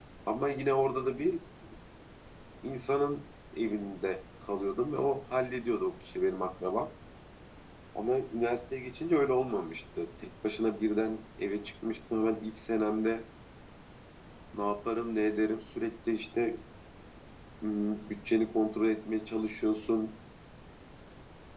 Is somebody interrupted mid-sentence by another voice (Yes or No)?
No